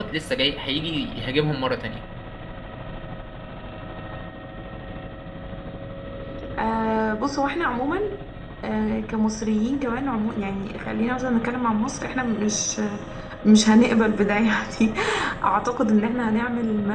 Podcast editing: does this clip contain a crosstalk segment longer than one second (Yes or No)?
No